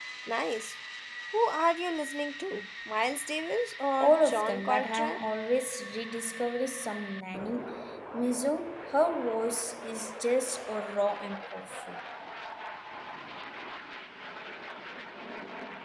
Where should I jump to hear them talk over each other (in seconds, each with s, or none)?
4.0 s